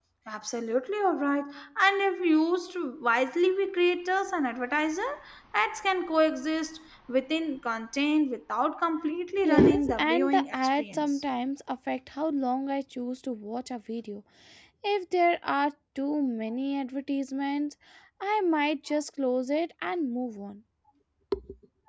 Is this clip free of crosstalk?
No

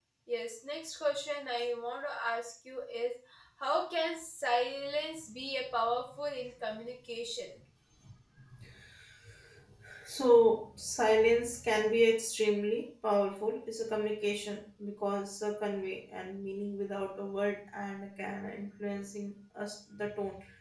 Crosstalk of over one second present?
No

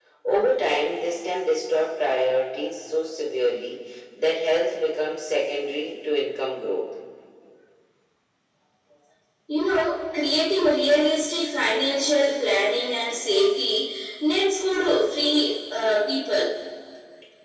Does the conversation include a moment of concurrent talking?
No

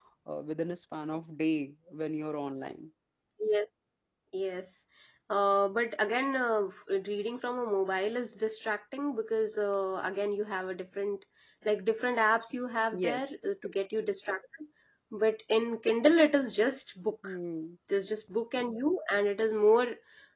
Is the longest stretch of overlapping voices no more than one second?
Yes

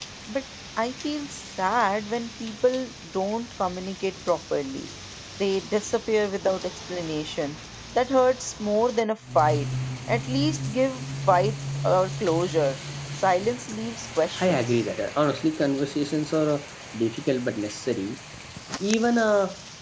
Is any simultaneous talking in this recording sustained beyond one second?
No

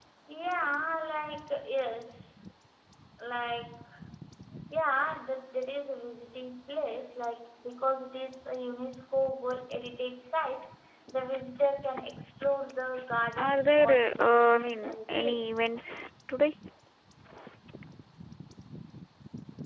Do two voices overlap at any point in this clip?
Yes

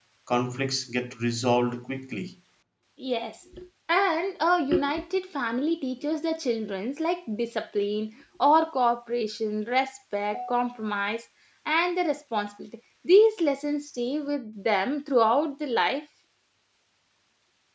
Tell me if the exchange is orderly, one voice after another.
Yes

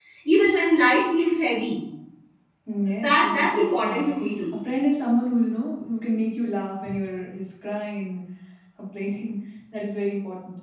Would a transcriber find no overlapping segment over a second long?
No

